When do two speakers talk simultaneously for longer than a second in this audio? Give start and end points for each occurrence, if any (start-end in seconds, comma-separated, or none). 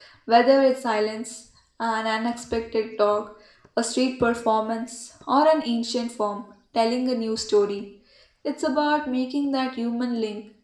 none